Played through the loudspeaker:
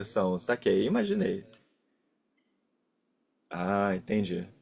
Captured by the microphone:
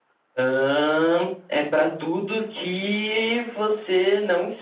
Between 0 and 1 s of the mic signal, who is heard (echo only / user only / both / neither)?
user only